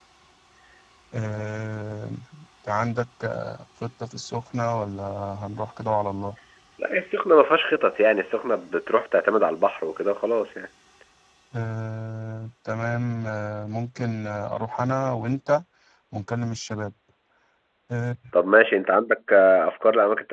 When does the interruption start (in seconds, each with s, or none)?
none